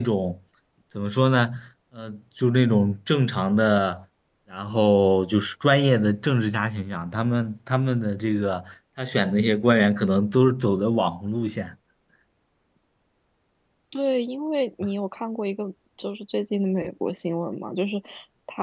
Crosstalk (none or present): none